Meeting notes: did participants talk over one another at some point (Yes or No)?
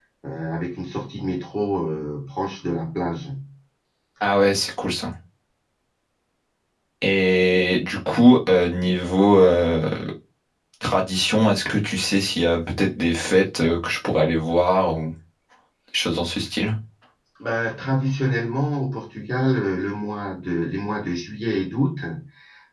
No